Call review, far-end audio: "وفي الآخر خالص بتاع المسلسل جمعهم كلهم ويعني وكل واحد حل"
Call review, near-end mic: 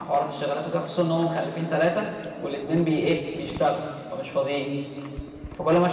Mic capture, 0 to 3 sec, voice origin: user only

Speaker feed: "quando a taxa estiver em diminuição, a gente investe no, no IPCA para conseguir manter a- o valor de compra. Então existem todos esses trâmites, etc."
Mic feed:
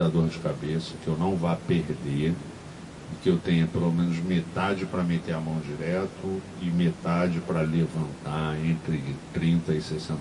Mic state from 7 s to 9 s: user only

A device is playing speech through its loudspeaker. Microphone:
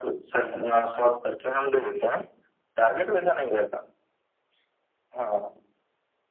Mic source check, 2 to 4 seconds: echo only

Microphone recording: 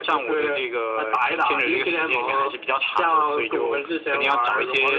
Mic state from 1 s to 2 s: echo only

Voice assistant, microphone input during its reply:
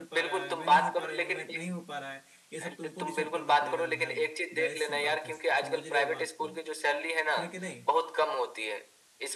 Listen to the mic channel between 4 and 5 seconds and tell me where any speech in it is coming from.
both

